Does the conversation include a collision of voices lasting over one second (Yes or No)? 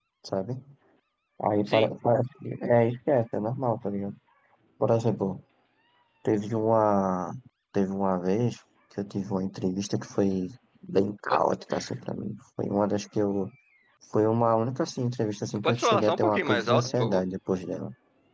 Yes